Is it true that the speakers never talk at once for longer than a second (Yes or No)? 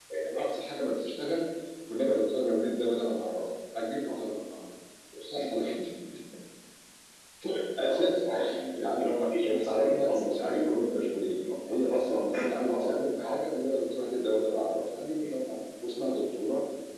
No